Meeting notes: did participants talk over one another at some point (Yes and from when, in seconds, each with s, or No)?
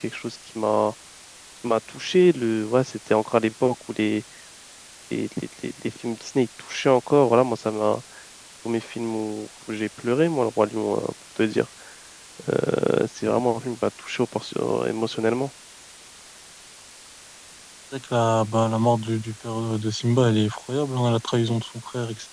No